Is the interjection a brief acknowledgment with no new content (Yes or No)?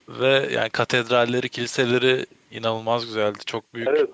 No